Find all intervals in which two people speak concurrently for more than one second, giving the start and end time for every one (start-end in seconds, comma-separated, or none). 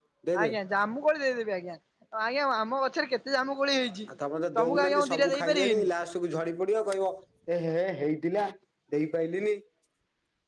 4.6-5.9